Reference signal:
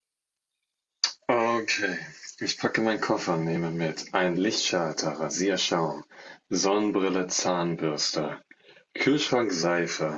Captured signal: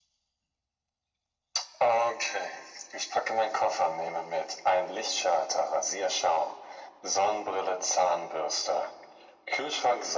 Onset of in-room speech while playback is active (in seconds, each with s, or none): none